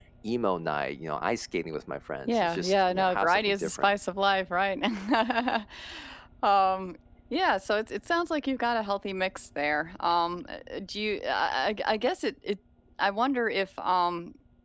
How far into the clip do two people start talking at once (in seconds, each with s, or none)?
2.2 s